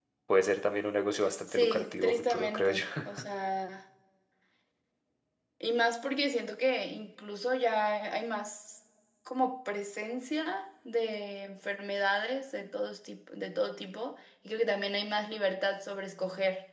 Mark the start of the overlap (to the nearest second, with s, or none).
1 s